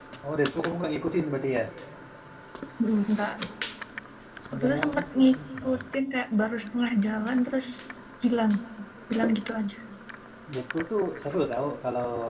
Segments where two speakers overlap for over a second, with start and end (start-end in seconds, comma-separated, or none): 4.5-5.8